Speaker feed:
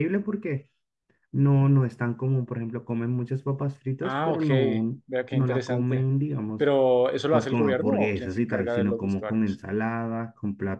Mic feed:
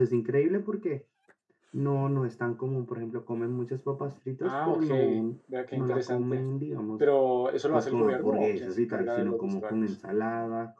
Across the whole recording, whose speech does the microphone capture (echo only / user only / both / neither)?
echo only